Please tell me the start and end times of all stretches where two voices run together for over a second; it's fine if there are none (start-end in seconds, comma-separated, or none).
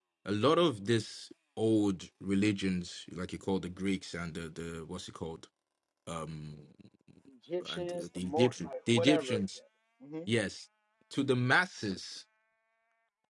7.7-9.4